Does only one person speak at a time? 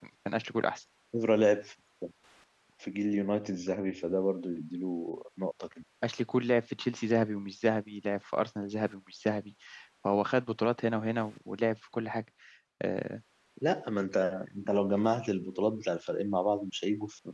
Yes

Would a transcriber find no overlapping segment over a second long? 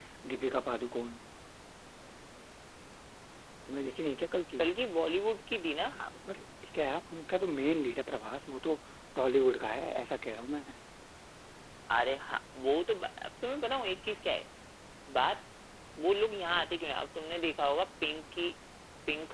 Yes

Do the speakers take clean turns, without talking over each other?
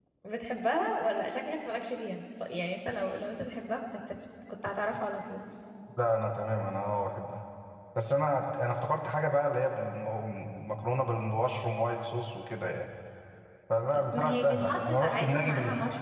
No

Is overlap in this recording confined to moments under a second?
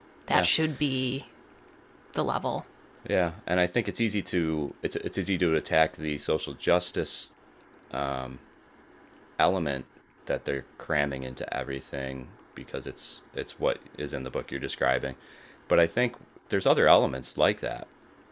Yes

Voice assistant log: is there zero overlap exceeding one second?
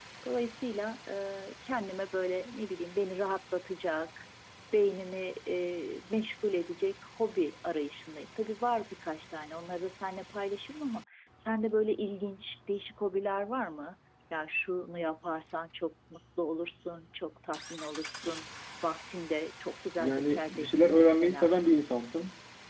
No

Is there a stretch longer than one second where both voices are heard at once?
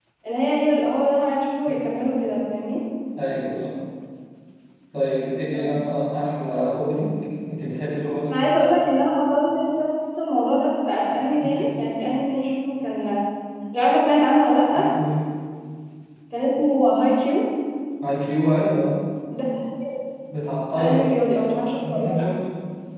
No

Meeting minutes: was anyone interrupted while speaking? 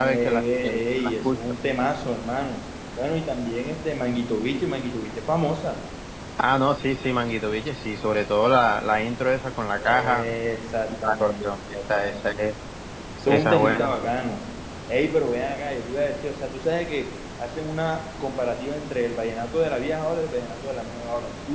Yes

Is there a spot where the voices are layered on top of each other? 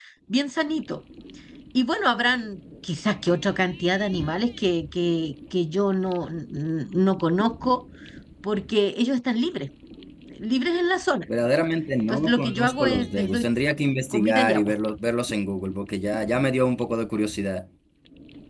Yes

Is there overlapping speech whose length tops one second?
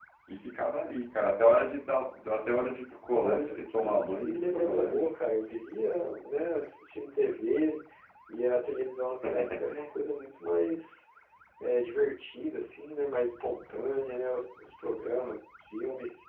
Yes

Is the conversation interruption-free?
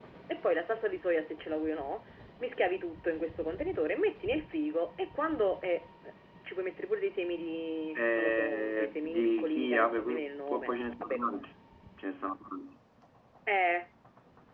No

